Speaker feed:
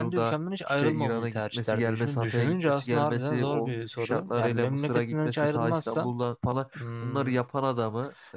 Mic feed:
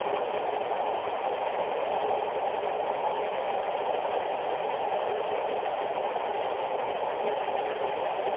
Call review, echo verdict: none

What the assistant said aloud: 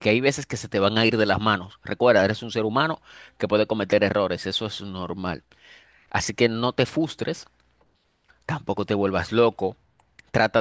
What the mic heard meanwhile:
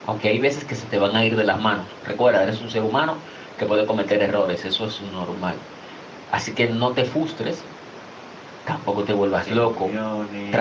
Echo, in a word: present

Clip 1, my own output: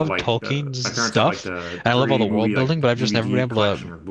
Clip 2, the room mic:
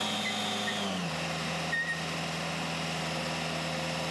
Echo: none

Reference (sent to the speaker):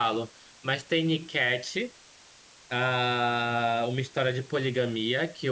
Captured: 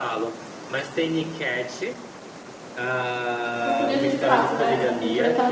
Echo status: present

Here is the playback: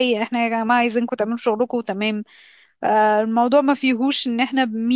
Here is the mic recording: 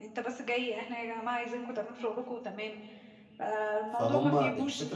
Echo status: present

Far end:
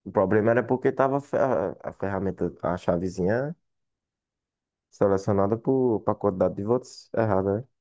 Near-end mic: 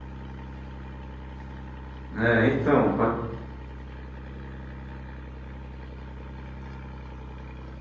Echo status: none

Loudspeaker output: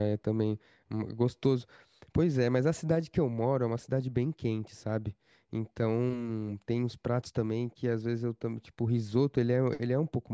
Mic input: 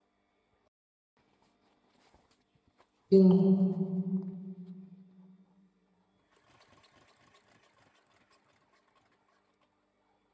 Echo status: none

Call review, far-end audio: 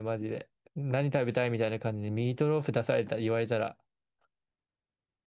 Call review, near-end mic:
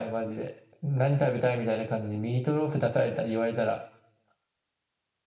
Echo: present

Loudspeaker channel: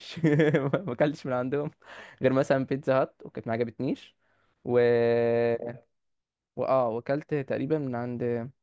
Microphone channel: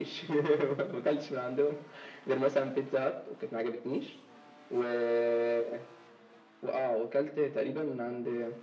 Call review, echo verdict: present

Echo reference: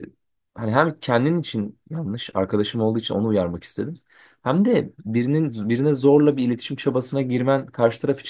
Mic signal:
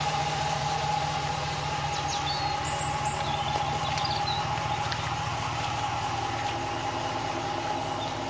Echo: none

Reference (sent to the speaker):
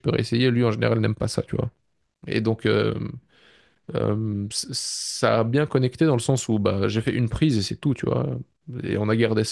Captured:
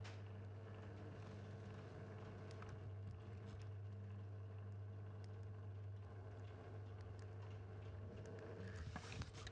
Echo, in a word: none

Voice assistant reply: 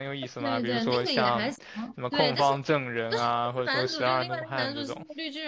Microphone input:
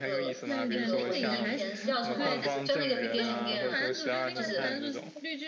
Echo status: present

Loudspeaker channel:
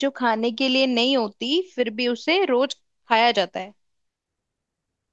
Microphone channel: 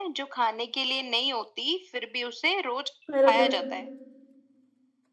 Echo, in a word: present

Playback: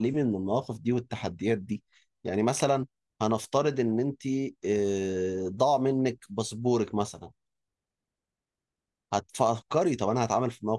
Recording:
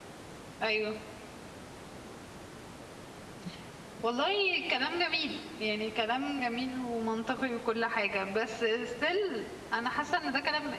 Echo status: none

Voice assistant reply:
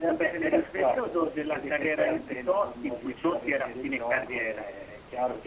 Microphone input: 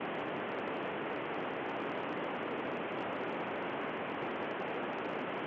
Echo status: none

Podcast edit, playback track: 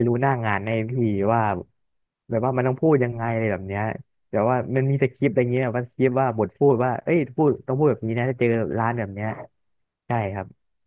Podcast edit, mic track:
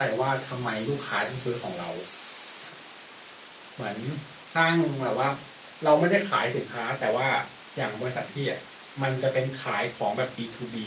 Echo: none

